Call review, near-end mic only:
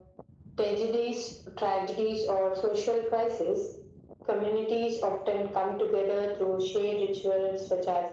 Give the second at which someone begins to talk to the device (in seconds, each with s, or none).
none